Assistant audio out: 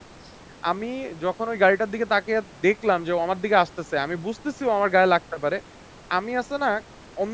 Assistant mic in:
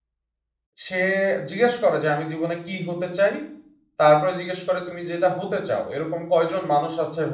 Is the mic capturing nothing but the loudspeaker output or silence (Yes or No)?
No